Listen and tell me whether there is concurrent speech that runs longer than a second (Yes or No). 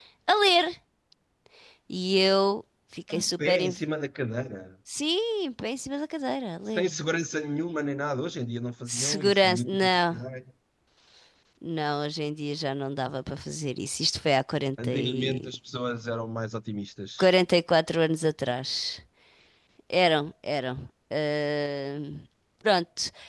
Yes